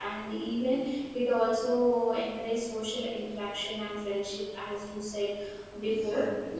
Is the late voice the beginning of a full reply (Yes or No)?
No